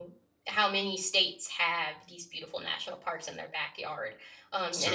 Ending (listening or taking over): listening